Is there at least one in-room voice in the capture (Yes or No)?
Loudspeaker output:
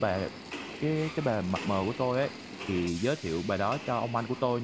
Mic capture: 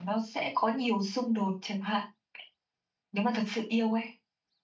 Yes